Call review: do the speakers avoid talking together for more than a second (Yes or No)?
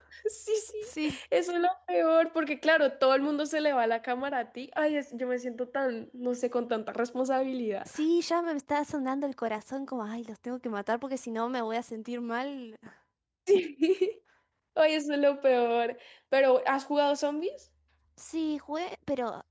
Yes